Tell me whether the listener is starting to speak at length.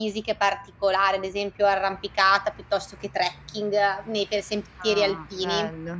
Yes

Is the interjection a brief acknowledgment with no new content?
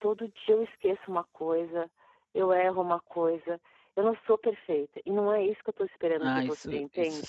No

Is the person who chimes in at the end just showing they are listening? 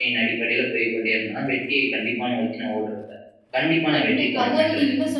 No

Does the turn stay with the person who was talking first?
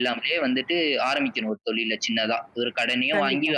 Yes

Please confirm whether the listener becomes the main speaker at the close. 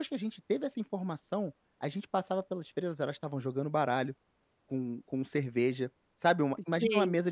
No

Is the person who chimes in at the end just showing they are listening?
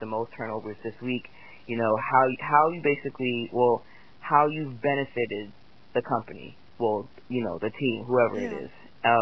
Yes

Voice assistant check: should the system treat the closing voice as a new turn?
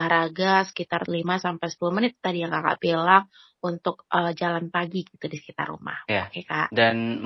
Yes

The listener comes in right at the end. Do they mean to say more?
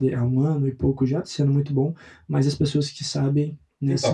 Yes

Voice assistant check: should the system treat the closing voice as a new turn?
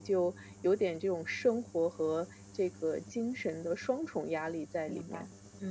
Yes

